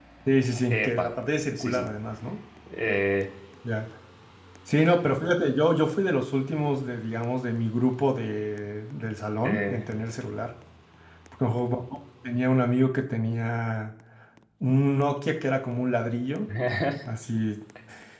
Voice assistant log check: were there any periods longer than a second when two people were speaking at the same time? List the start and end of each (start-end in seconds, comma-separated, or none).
none